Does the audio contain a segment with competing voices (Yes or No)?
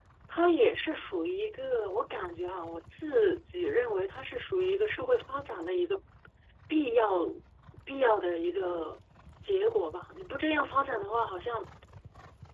No